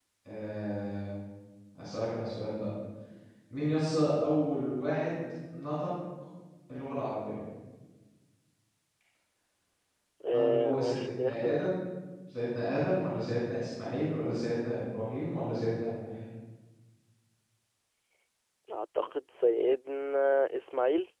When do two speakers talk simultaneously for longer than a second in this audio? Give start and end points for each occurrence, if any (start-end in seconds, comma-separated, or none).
10.3-11.7